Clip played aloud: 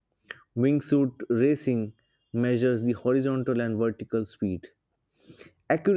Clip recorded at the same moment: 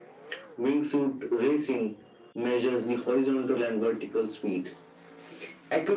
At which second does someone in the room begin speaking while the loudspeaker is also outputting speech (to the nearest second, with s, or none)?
none